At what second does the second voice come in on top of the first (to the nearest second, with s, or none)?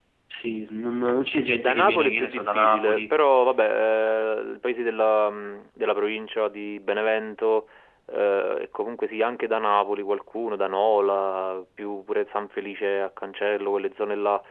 2 s